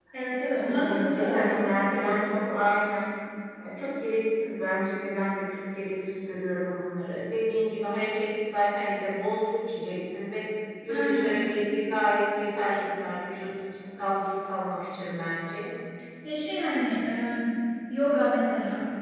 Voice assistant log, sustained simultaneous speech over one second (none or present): present